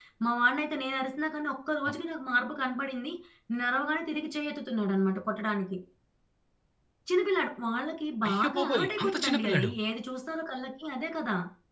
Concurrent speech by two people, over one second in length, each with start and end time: 8.2-9.7

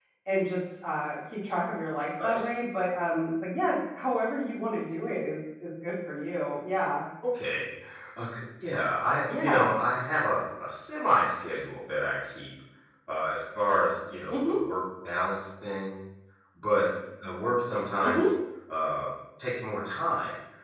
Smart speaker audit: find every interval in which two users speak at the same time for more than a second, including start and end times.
none

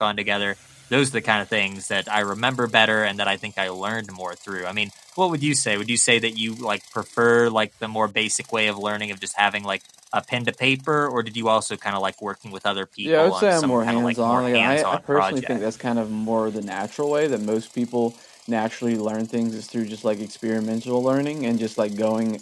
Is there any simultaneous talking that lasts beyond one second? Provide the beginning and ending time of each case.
13.0-15.6

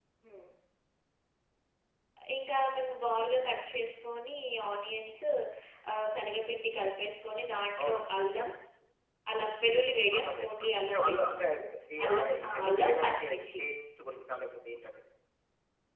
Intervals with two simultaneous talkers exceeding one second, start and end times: 10.2-11.4, 12.1-13.6

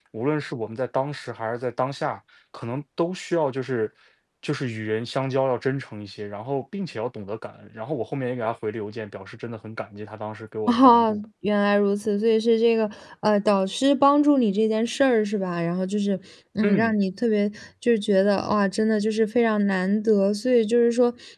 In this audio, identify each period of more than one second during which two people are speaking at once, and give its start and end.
none

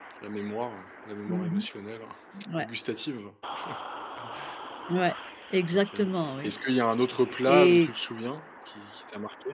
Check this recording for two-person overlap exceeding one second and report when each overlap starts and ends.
none

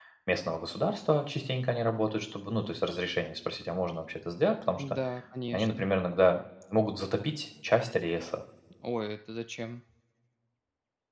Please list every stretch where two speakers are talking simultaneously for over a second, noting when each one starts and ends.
none

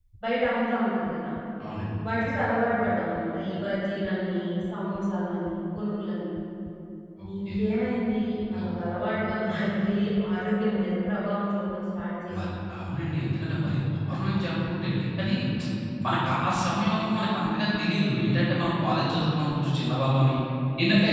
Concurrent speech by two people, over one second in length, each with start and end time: none

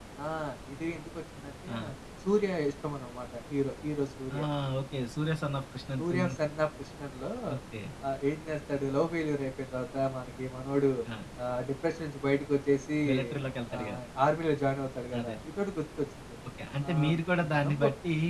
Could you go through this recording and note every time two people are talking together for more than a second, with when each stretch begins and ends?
none

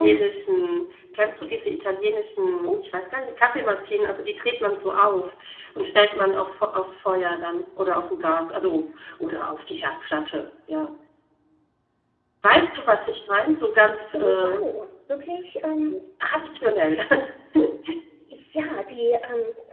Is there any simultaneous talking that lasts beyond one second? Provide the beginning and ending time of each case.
none

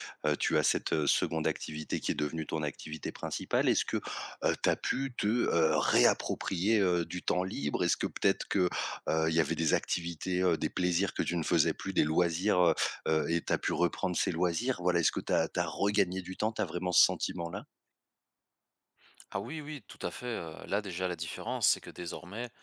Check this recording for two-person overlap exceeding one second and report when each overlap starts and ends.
none

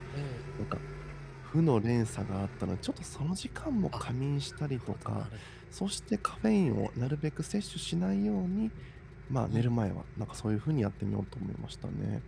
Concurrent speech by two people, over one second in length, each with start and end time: none

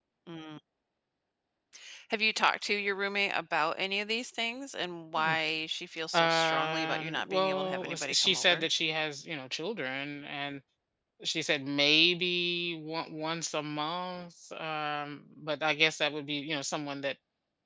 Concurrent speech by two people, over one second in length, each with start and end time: 6.1-8.6

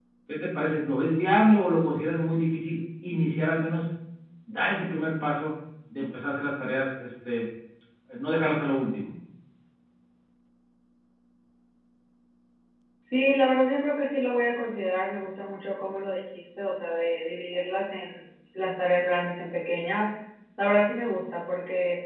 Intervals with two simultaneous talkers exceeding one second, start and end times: none

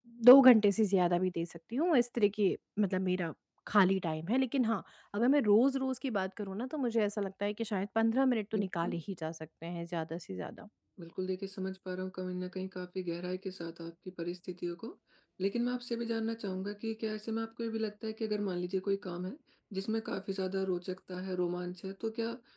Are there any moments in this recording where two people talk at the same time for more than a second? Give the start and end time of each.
none

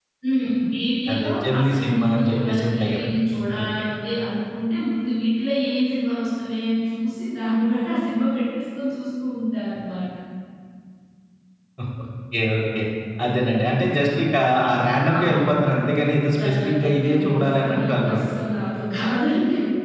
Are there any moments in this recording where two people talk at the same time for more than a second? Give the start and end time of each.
1.1-3.1, 16.4-18.2

